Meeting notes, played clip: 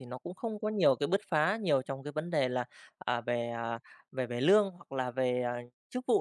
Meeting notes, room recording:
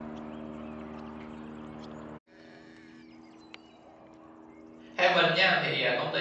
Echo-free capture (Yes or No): Yes